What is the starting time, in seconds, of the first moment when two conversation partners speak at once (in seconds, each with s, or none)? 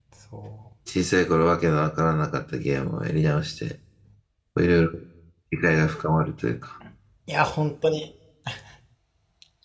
none